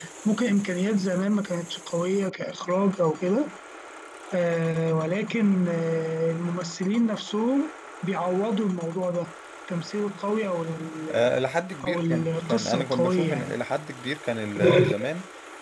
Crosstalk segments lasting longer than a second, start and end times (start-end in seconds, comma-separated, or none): 11.8-13.5